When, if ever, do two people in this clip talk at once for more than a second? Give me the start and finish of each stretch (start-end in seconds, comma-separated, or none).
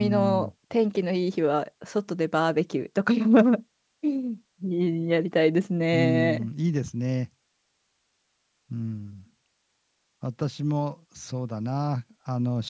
none